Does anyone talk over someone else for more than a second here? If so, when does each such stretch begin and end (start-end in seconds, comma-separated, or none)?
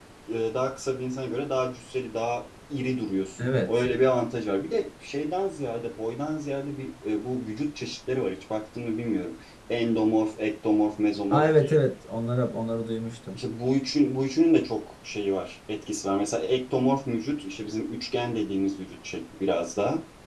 none